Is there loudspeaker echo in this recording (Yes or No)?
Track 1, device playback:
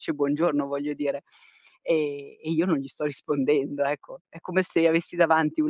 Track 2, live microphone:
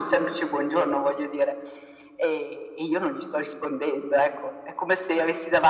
Yes